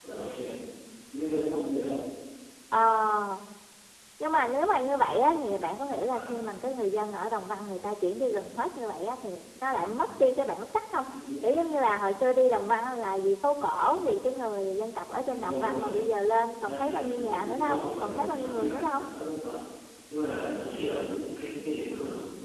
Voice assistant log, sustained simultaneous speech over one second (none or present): present